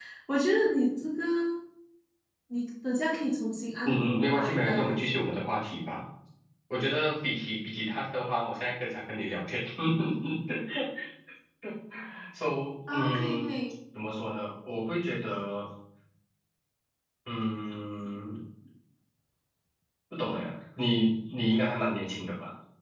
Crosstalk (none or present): present